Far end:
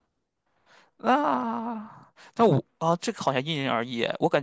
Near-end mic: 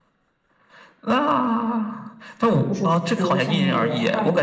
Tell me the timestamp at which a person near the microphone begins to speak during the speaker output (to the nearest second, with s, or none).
3 s